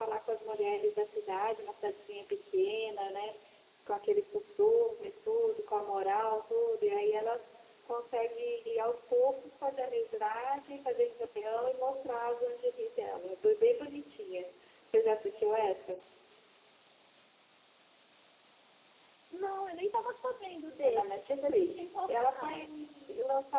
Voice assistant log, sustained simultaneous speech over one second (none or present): present